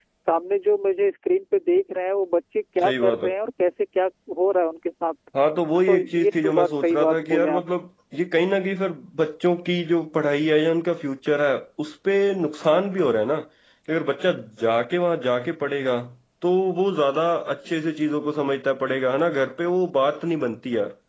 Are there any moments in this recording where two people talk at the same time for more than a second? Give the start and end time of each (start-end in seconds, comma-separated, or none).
5.9-7.6